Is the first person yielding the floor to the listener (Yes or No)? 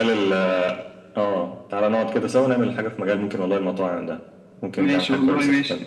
Yes